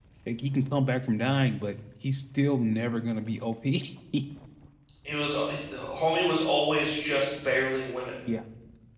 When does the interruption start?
none

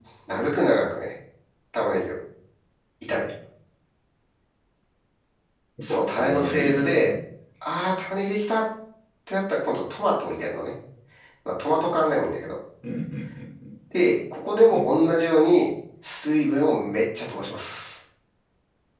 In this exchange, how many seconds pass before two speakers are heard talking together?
5.9 s

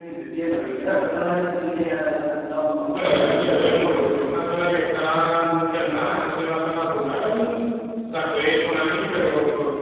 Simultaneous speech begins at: 2.9 s

